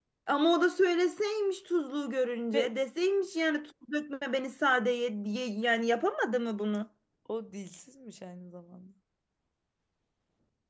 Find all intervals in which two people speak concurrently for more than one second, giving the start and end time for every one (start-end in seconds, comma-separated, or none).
none